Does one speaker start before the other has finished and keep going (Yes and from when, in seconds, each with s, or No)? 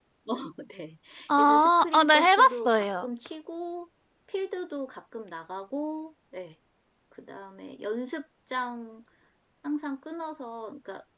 Yes, from 1.4 s